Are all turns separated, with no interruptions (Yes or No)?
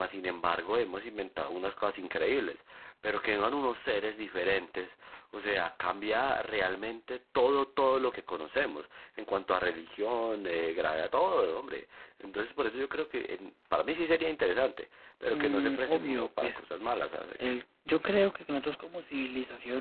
No